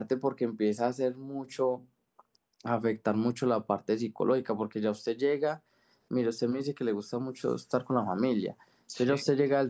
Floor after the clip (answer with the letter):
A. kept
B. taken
A